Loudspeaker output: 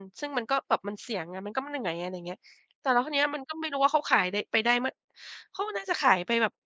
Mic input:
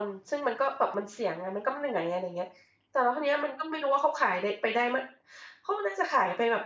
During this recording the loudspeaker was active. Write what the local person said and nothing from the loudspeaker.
none

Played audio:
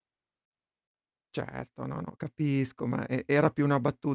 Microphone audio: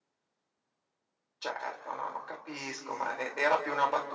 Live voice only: none

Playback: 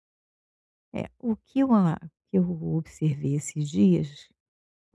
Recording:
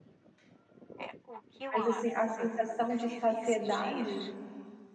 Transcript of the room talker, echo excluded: Mas assim, a sensação de saciedade

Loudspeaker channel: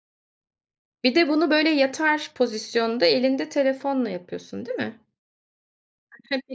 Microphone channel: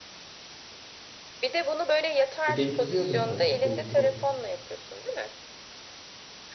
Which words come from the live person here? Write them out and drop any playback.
E, değiştiriyordum, tabii, değiştiriyordum.

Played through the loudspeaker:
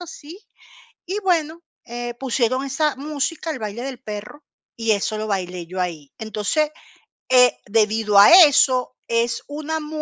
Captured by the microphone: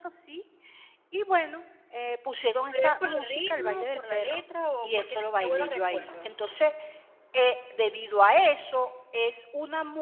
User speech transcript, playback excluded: ¿Pero y es por el ritmo, por la letra o porque te trae buenos recuerdos?

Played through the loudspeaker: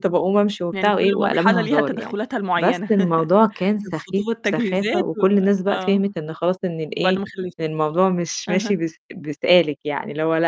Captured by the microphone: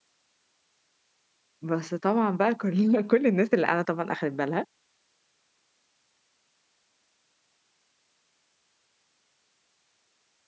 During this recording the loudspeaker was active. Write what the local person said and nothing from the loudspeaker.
بس طبعًا بقى كلّنا كُلّ الناس اللي قاعدة طبعًا أخدِت بالها،

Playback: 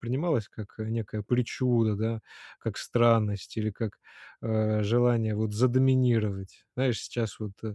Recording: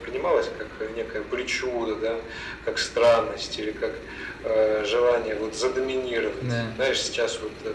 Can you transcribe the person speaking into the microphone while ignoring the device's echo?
Да.

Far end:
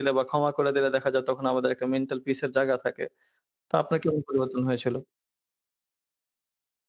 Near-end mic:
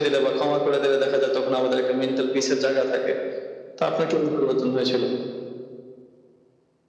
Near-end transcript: none

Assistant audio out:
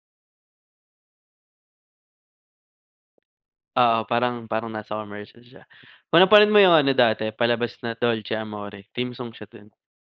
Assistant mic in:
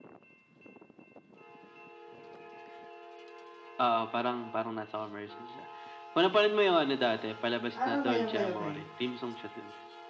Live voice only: Ah, okey, okey, okey,

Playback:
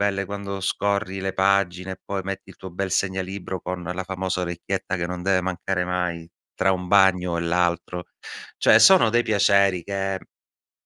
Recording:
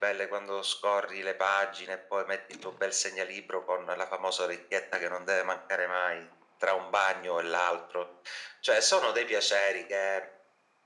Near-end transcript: none

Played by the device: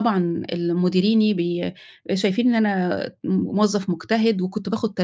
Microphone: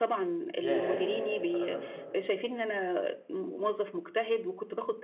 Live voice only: ياه! للدرجة دي!

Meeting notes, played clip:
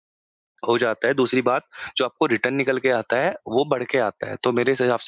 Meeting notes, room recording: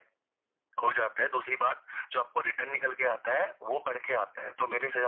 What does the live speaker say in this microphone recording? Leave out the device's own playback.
none

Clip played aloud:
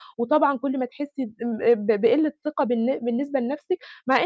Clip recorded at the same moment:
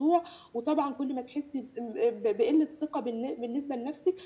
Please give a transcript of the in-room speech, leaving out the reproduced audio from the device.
none

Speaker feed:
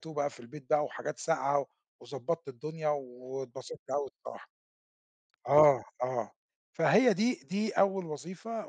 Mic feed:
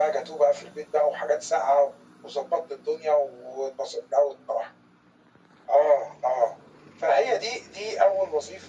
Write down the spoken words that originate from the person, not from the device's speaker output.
none

